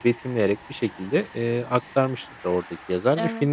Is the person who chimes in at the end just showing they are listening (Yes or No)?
Yes